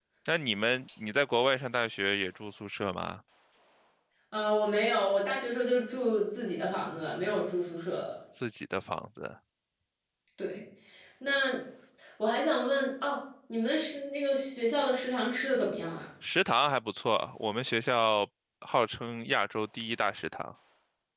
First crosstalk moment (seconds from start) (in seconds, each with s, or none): none